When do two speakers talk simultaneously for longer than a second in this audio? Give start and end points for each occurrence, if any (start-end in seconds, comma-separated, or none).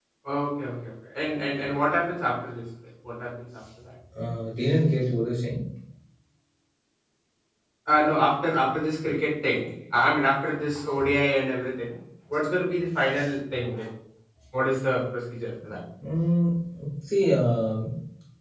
none